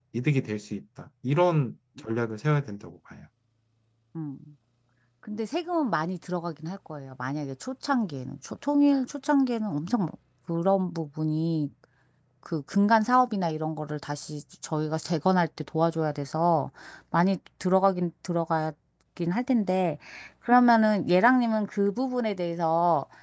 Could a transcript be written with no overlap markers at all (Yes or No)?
Yes